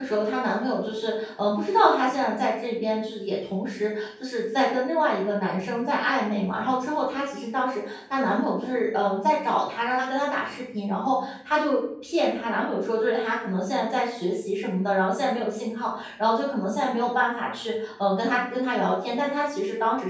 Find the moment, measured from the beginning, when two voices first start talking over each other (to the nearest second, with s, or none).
none